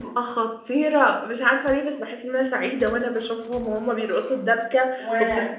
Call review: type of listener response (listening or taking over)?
listening